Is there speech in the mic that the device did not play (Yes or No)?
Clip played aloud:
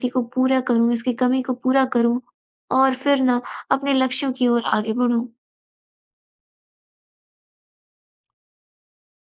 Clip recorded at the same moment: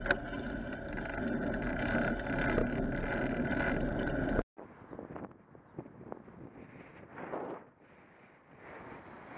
No